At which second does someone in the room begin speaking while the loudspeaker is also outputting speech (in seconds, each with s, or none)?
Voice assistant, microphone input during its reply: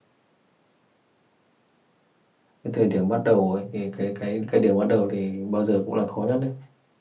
2.6 s